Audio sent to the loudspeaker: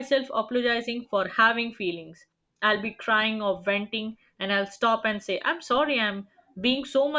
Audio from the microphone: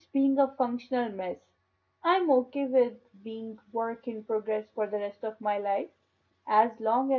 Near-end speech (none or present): present